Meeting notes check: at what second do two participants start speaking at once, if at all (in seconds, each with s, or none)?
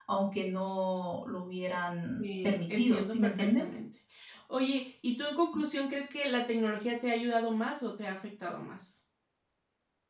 2.2 s